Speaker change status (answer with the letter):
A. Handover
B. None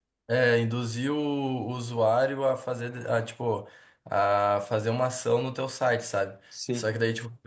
B